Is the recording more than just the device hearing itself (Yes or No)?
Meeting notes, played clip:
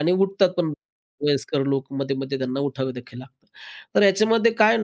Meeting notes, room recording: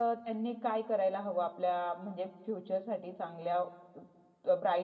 Yes